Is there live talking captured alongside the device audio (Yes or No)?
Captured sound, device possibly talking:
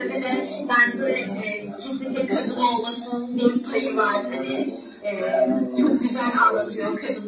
No